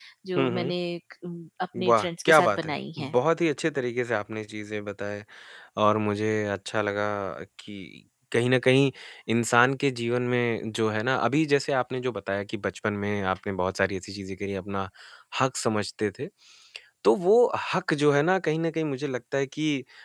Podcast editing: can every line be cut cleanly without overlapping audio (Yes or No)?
No